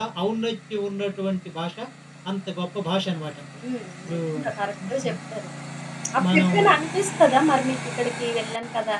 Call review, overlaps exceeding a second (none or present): none